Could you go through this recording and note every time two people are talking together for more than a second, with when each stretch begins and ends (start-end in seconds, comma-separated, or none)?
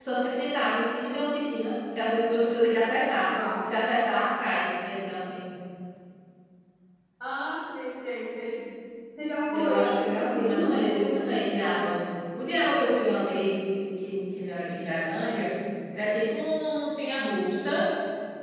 9.5-11.1